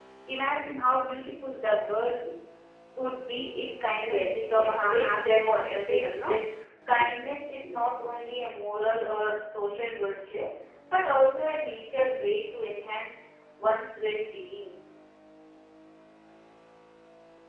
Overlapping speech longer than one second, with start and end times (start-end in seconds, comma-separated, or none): 4.0-6.4